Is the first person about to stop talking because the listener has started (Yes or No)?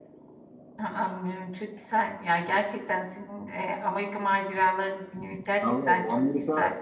Yes